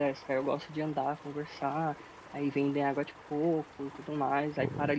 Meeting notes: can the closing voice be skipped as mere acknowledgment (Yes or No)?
Yes